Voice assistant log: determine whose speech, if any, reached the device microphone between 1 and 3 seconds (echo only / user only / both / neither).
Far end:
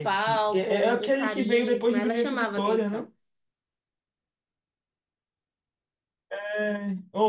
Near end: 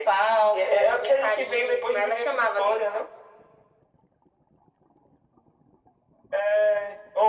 echo only